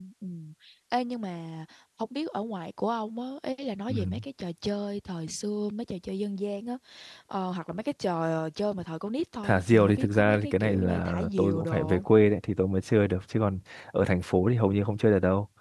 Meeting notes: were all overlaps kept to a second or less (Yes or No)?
No